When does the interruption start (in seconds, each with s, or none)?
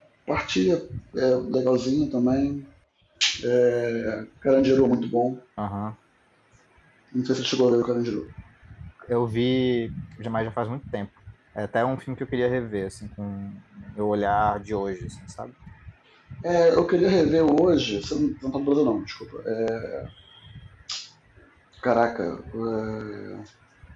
none